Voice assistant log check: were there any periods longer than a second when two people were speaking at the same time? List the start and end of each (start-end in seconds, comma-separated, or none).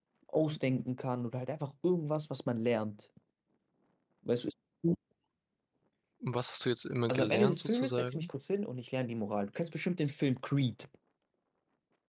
7.1-8.3